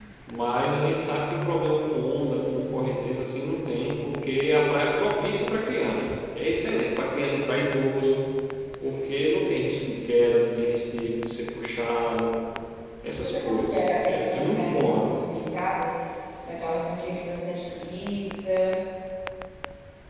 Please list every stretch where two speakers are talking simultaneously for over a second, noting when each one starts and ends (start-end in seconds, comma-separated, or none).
13.1-15.1